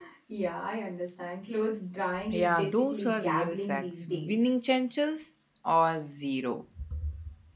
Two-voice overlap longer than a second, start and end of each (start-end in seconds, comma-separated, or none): 2.3-4.3